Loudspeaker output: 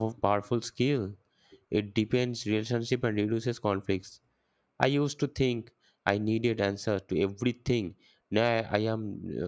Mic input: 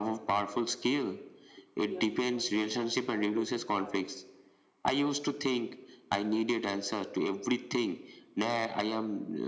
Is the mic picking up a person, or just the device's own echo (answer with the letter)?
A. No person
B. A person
B